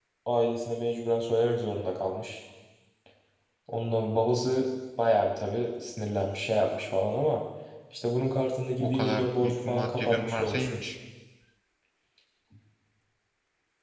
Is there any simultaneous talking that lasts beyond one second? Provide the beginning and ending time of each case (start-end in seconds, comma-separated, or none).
8.8-10.8